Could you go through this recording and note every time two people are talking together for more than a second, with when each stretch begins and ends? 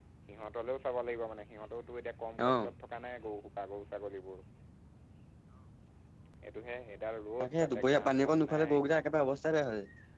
7.4-8.8

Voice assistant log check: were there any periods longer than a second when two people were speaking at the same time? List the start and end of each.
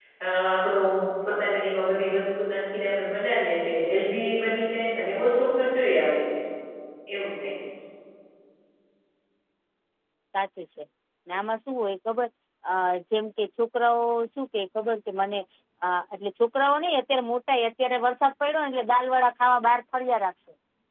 none

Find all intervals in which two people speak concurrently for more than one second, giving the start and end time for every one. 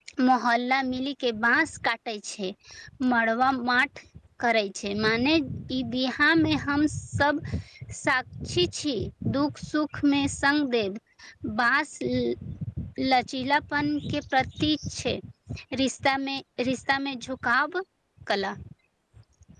none

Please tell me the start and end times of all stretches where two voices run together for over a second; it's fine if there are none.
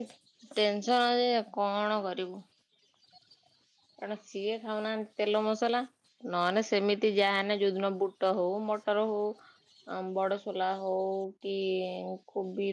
none

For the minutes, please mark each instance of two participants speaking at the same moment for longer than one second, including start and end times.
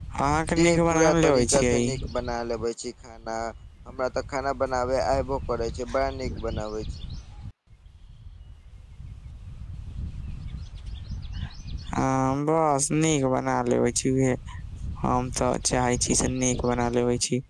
0.6-1.9

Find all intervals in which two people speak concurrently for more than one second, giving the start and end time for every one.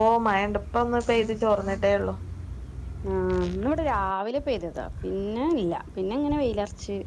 none

